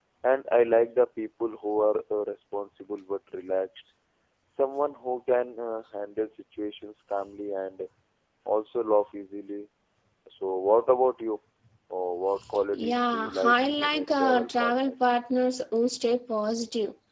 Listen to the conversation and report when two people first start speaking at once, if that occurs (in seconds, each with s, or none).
12.7 s